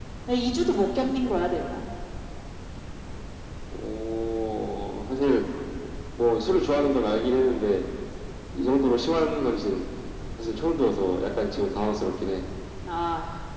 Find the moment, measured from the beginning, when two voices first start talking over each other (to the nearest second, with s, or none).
none